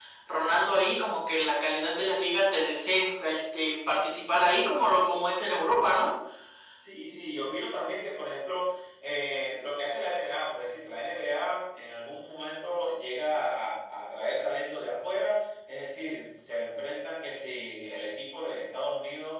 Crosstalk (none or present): none